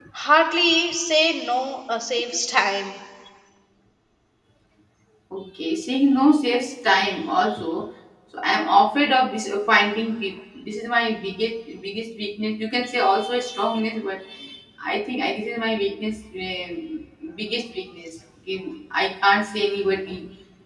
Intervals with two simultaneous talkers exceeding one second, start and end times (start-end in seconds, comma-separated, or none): none